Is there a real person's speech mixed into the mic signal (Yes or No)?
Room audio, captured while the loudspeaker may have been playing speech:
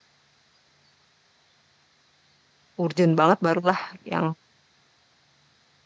Yes